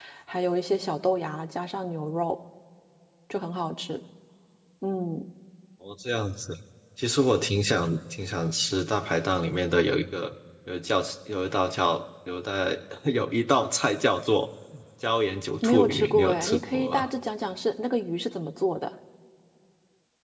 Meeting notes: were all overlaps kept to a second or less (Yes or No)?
No